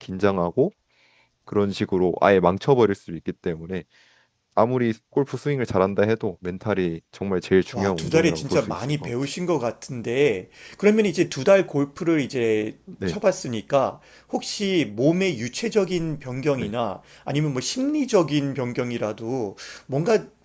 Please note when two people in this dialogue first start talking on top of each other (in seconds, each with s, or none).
7.7 s